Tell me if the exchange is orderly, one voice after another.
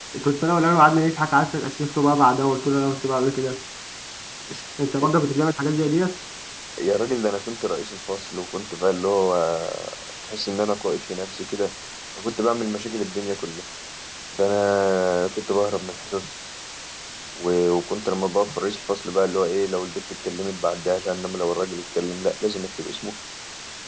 Yes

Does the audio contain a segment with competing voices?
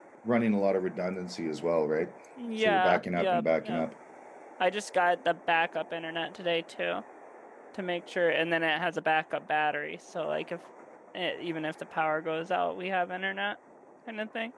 Yes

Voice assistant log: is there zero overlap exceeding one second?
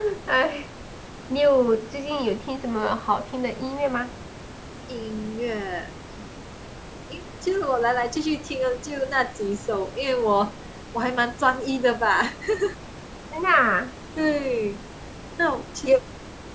Yes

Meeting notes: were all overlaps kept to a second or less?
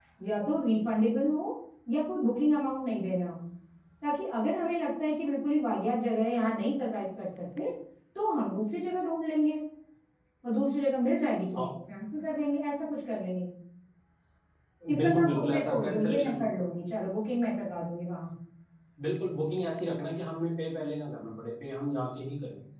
No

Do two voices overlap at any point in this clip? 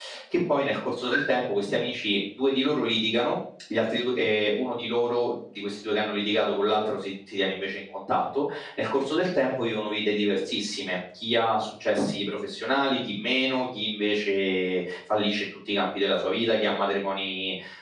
No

